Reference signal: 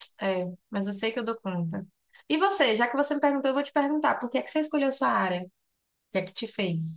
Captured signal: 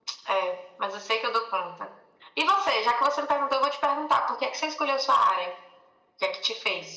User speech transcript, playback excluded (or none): none